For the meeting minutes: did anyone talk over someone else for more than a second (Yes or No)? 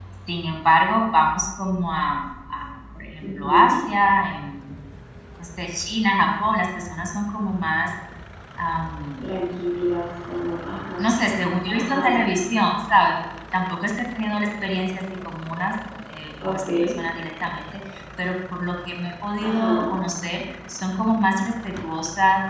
No